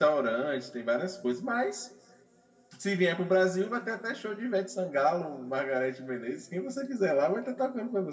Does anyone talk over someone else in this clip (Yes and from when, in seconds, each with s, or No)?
No